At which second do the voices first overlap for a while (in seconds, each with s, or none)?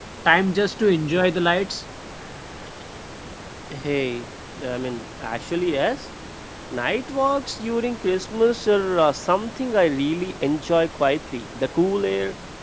none